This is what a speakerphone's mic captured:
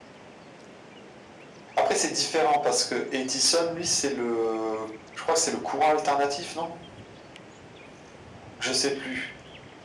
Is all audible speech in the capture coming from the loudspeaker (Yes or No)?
Yes